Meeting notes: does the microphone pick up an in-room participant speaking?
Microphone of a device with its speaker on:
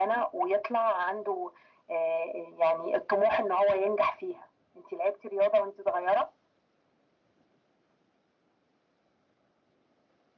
No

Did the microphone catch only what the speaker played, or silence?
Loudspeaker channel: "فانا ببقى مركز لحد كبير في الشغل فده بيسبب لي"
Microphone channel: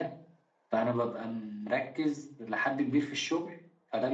Yes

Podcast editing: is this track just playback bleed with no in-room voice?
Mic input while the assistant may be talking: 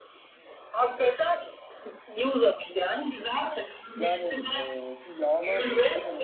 No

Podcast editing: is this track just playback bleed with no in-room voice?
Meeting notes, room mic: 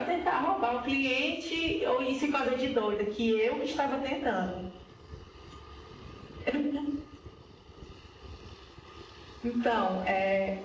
Yes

